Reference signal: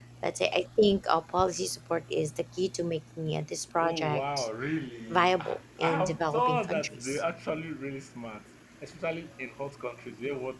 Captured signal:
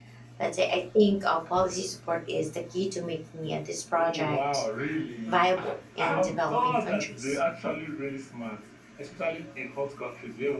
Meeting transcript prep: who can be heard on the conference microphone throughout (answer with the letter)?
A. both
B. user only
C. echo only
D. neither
C